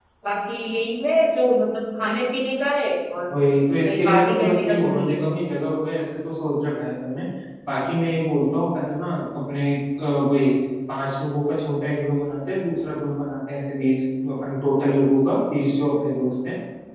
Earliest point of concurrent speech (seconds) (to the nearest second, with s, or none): 4 s